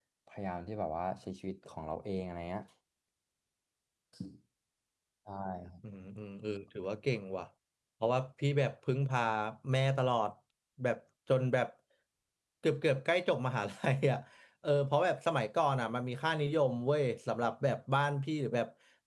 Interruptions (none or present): none